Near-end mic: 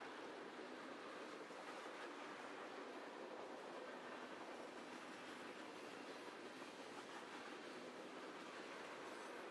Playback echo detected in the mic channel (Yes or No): No